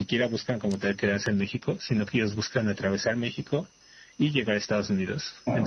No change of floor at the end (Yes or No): Yes